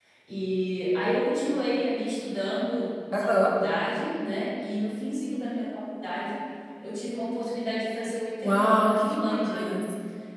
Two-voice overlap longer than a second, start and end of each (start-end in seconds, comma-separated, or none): 8.4-9.8